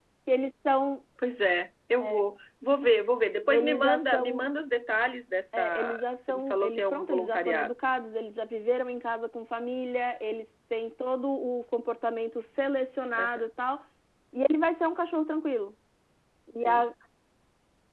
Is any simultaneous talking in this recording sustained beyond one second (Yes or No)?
Yes